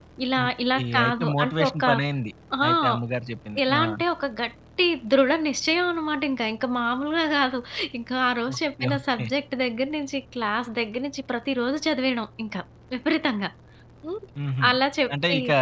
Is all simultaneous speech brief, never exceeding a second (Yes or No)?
No